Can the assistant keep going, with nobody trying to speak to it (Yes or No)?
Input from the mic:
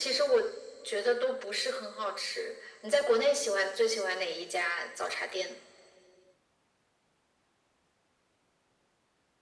Yes